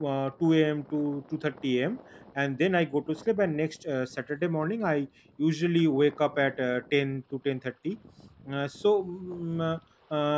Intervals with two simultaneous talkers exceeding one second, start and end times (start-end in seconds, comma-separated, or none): none